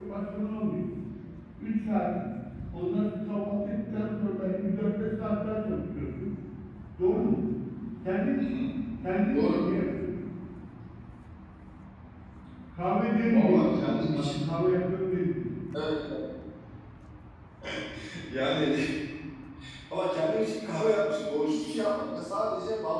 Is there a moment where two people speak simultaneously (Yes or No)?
Yes